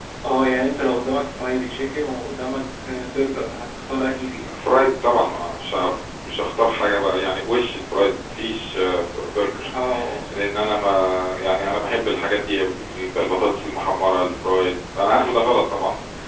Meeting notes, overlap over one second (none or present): none